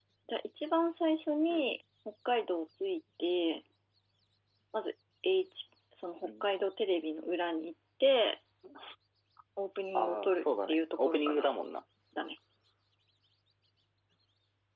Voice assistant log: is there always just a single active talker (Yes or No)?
No